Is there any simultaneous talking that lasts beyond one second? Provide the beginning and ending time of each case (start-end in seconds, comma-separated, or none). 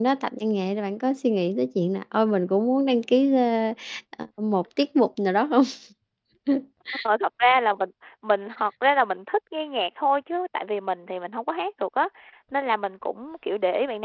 none